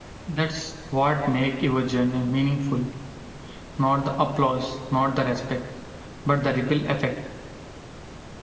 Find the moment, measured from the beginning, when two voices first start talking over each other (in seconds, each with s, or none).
none